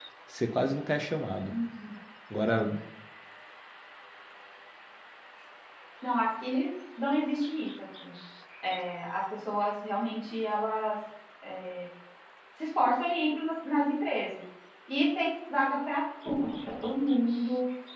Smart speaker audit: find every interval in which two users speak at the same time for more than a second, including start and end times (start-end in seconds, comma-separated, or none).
none